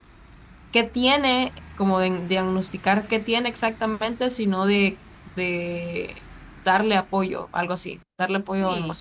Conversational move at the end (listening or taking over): taking over